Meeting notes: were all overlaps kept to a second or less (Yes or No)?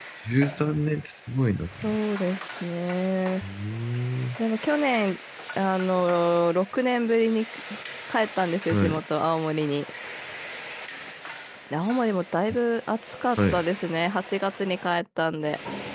Yes